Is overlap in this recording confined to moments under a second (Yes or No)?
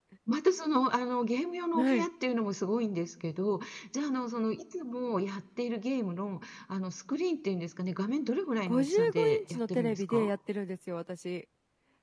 No